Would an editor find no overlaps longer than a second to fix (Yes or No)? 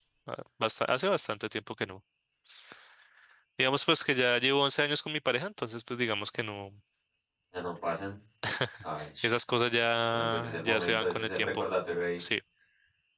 No